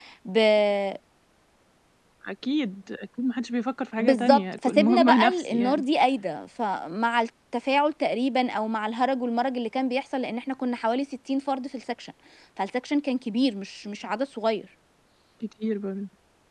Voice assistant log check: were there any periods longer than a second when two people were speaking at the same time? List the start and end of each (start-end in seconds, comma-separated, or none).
4.0-5.8